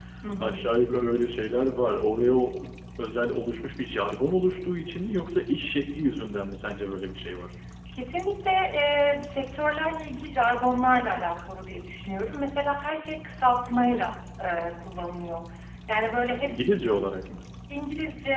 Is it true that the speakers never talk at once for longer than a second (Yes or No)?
Yes